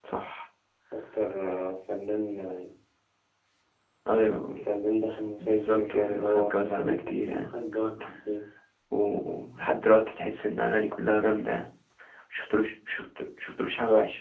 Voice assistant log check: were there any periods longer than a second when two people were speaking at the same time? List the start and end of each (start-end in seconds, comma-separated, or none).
5.4-7.6